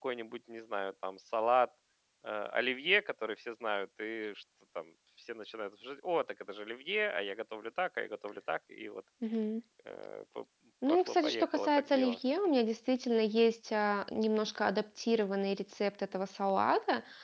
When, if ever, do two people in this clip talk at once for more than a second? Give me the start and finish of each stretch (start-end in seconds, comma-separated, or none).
10.9-12.2